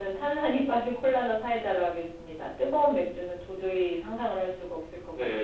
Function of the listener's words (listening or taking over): taking over